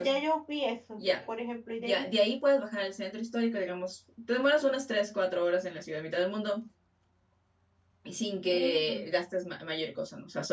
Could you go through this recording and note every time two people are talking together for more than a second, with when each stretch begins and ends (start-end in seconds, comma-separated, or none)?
none